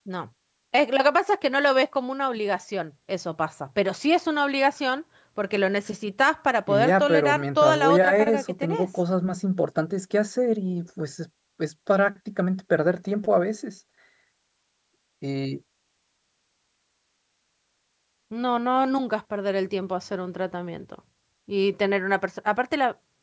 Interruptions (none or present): present